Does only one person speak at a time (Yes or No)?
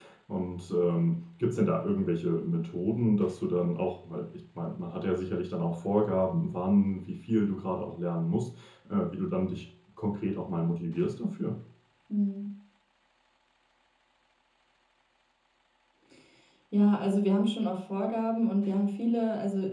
Yes